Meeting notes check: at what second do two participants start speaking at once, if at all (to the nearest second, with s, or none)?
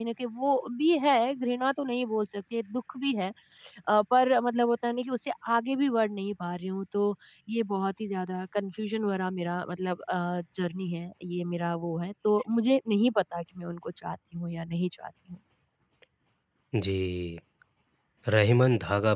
none